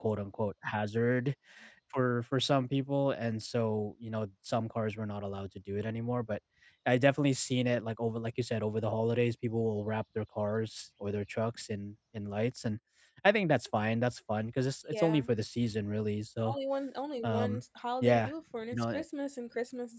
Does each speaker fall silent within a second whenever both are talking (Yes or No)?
Yes